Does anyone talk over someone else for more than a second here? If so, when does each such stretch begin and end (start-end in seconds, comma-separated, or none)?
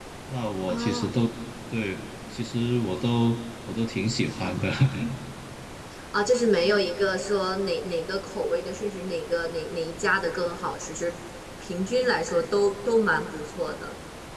none